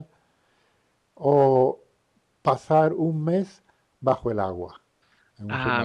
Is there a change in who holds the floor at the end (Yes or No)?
Yes